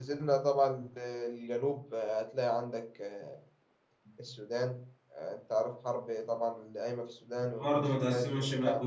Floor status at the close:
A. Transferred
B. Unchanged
A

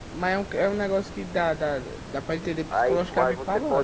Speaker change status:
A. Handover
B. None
A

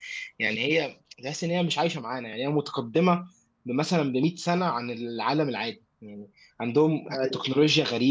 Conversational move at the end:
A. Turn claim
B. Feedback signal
B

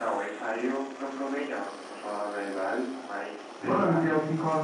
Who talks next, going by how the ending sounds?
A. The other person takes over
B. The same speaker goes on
A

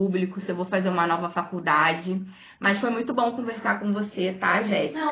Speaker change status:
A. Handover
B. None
A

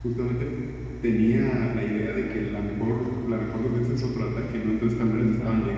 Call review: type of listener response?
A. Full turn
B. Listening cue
A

